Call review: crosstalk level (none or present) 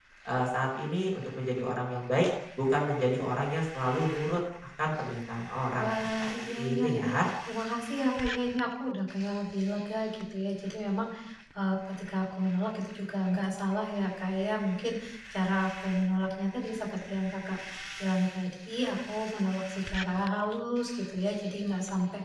present